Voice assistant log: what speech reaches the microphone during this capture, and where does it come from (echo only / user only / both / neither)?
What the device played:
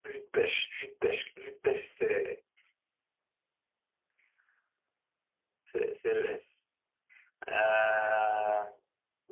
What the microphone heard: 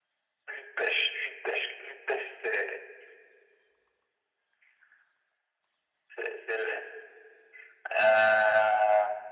echo only